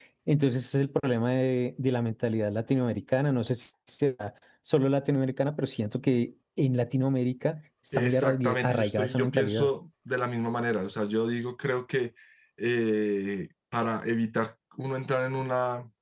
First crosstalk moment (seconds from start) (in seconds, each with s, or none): 7.9 s